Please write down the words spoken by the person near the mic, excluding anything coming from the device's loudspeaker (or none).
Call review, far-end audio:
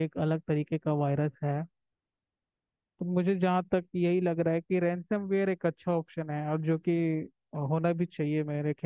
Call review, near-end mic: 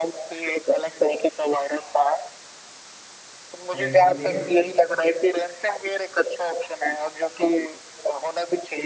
रैंसमवेयर